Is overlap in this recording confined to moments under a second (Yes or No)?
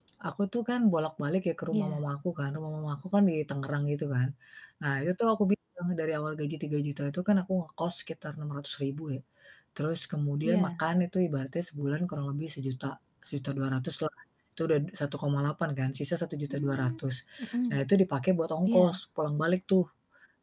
Yes